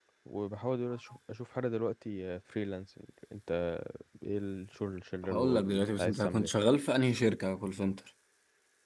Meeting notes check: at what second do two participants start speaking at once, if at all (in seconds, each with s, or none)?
5.2 s